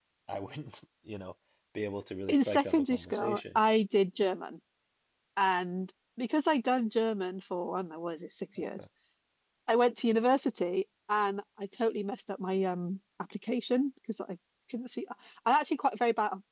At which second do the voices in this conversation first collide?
2.3 s

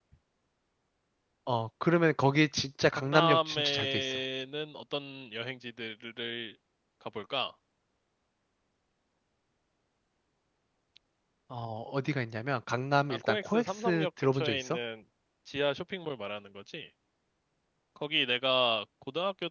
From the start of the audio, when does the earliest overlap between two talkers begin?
2.9 s

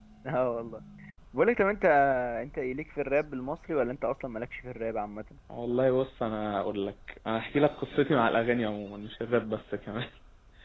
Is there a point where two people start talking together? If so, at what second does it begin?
none

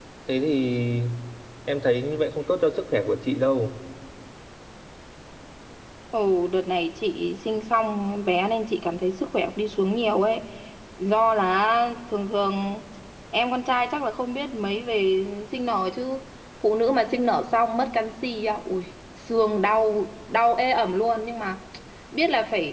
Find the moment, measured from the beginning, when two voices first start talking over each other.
none

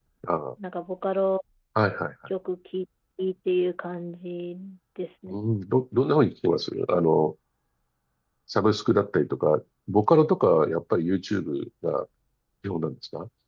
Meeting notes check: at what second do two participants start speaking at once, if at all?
none

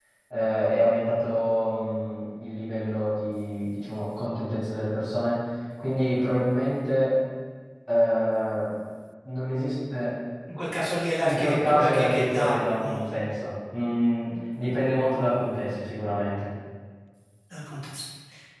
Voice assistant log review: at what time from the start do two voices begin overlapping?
11.2 s

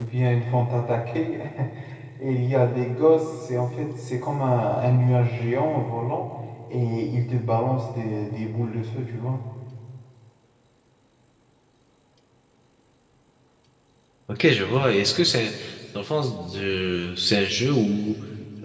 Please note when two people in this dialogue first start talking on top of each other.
none

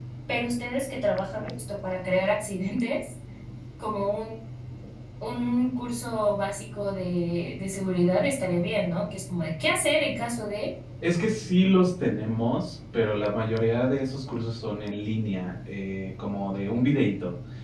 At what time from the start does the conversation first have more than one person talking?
none

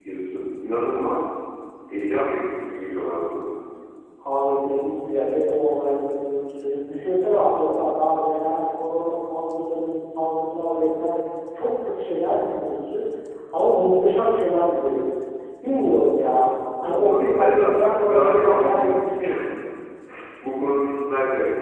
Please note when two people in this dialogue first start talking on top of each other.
16.8 s

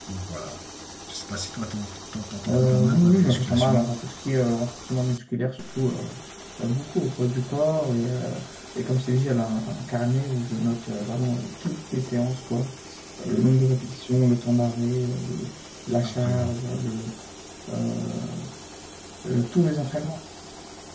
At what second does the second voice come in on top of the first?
2.5 s

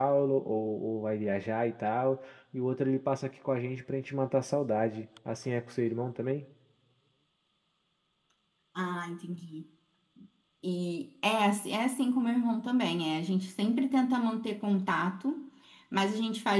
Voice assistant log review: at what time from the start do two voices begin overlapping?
none

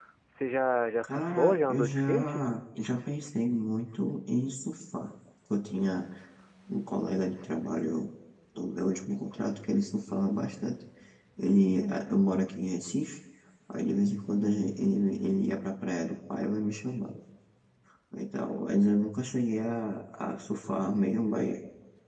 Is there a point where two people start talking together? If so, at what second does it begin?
1.0 s

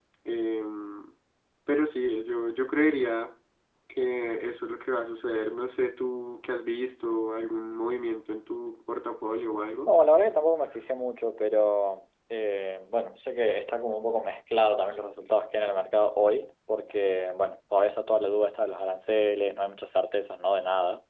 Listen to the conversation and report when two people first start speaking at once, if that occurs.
none

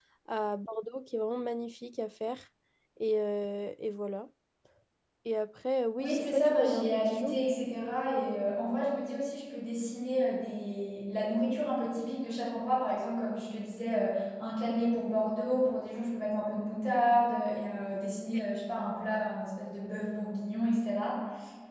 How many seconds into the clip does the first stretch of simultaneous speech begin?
6.0 s

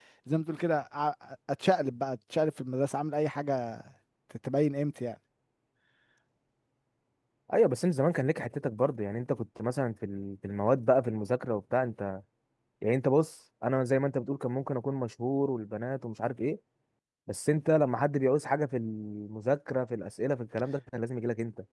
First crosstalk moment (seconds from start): none

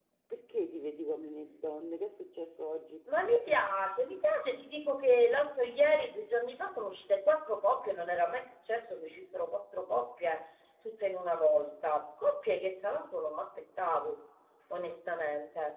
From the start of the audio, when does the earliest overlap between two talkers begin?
none

